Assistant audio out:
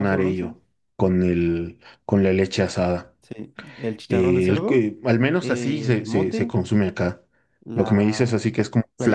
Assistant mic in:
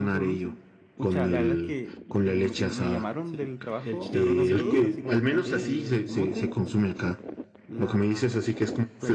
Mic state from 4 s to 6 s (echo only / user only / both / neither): both